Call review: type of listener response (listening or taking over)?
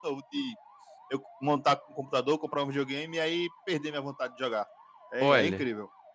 taking over